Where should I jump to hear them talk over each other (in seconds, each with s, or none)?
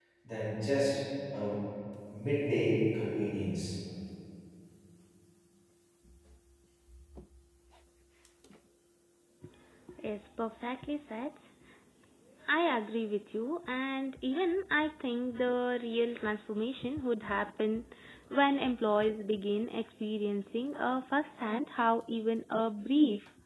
none